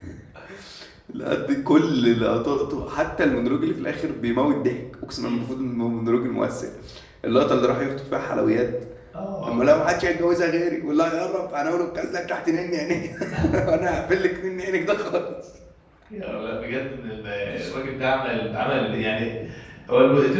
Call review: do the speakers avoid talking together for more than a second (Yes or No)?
Yes